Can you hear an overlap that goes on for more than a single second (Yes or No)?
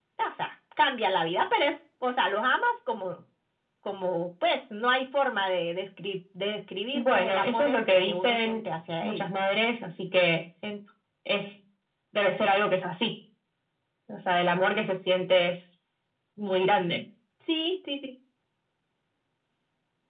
Yes